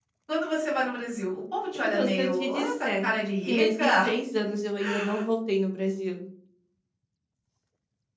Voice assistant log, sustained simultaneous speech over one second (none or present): present